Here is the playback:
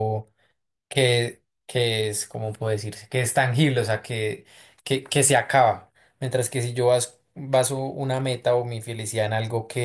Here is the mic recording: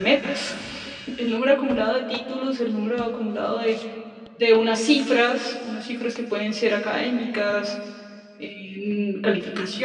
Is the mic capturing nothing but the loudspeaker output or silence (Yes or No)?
No